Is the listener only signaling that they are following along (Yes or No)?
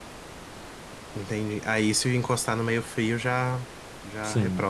No